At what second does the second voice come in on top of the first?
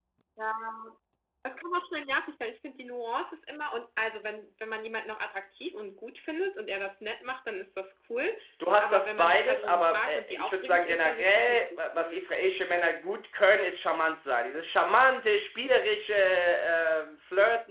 9 s

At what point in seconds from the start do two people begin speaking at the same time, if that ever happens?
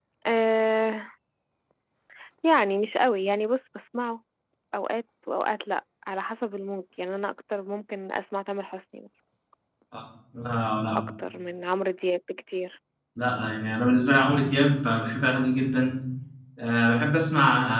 none

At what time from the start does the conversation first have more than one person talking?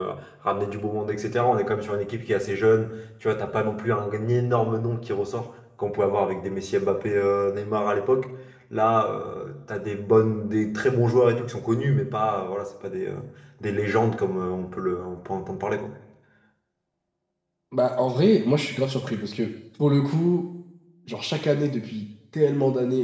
none

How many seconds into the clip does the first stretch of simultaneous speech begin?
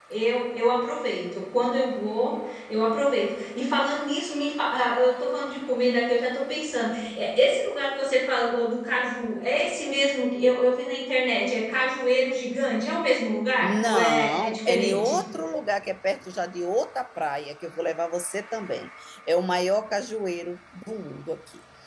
14 s

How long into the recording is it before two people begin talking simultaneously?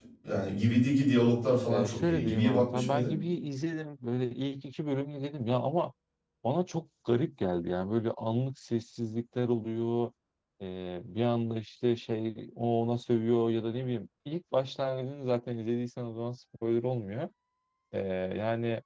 2 s

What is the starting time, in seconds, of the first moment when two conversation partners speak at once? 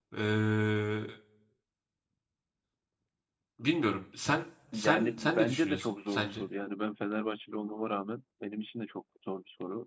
5 s

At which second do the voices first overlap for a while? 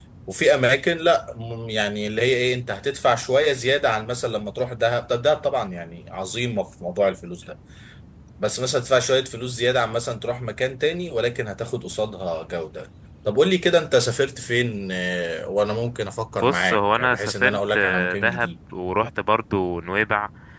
16 s

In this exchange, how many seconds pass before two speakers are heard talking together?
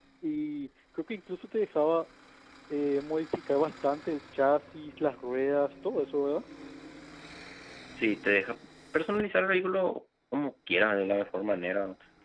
none

